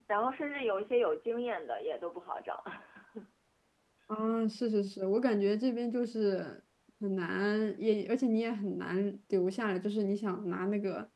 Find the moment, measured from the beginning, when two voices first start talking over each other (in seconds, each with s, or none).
none